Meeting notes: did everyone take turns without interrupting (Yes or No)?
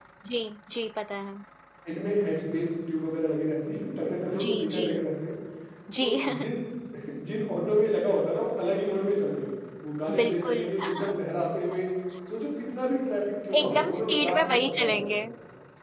No